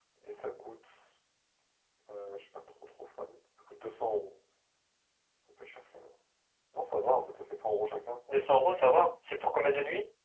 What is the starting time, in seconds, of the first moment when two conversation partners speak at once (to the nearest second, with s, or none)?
none